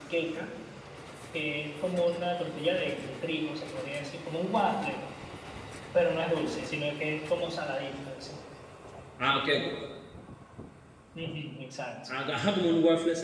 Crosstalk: none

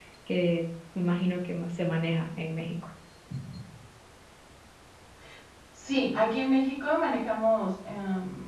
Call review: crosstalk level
none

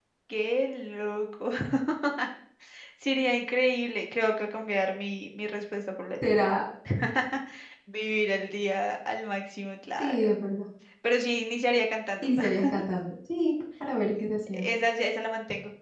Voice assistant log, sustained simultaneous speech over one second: none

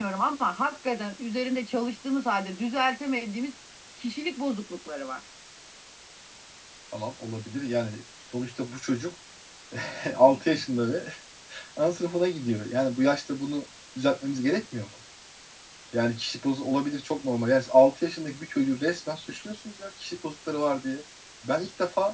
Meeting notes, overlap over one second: none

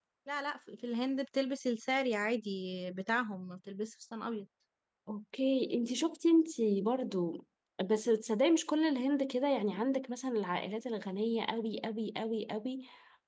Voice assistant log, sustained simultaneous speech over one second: none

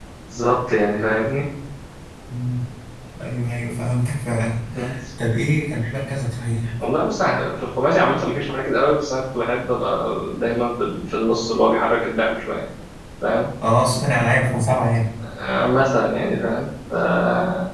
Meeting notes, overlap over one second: none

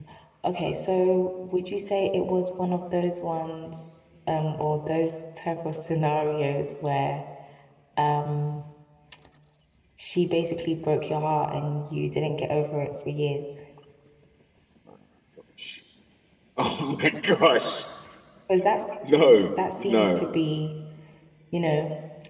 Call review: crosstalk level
present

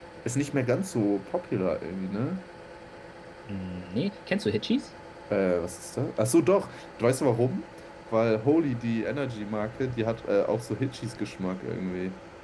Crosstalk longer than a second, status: none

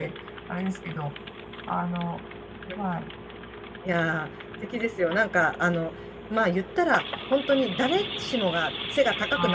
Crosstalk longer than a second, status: none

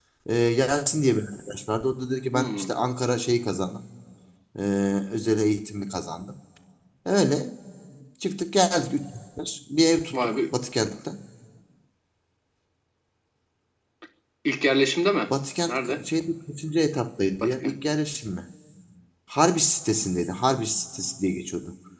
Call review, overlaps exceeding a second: none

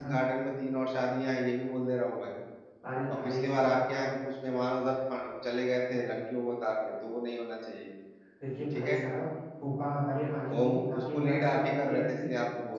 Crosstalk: present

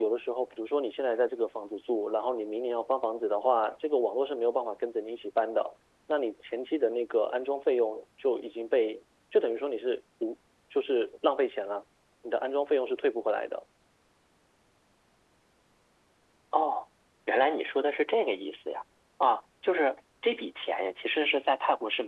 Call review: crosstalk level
none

